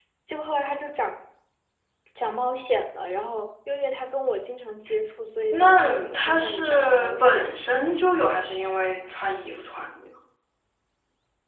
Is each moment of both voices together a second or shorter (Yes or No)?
No